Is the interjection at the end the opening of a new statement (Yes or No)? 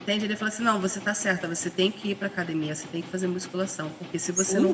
Yes